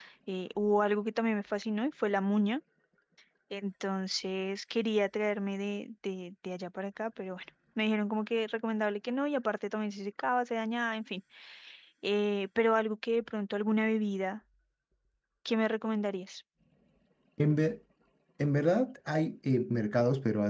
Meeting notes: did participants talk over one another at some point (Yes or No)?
No